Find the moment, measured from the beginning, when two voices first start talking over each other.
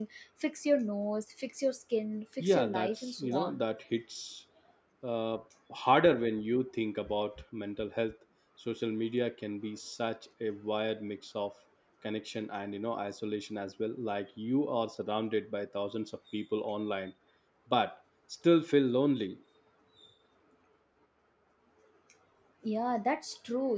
2.4 s

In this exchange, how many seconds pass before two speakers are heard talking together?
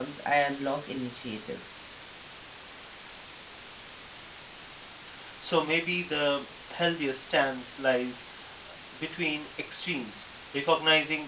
none

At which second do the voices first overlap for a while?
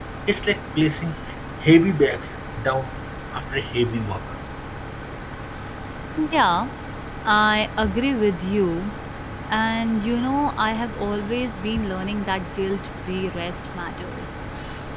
none

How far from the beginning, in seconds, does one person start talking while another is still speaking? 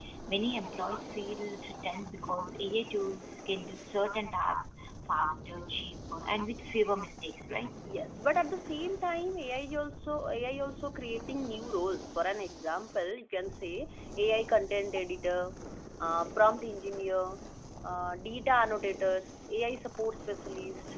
none

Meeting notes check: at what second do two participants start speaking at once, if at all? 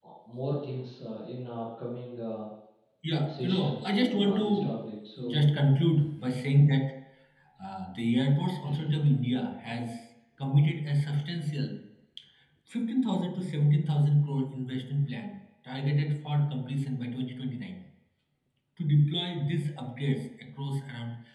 3.3 s

